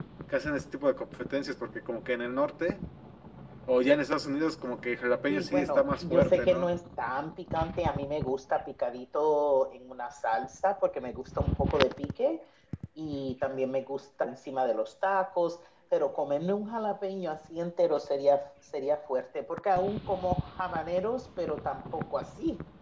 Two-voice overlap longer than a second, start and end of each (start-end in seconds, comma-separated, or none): 5.3-6.7